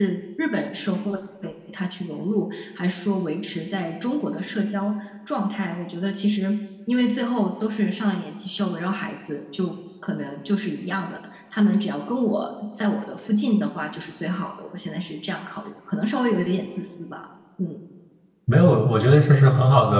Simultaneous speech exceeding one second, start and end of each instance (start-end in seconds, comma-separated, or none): none